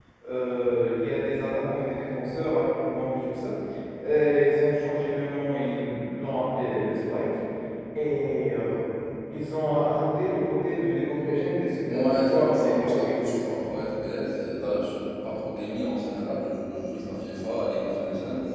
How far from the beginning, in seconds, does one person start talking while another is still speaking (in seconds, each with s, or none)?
11.8 s